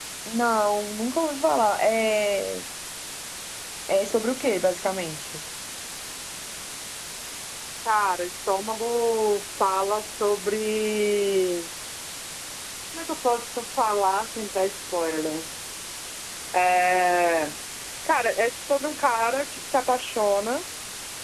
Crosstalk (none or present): none